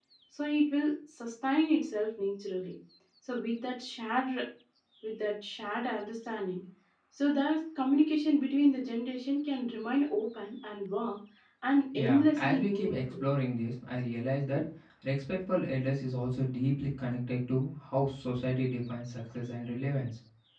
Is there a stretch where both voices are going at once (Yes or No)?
Yes